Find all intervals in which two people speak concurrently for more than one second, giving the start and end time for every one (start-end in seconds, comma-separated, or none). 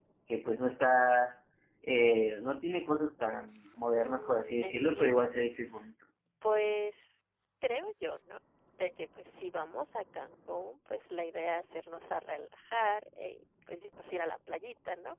4.0-5.3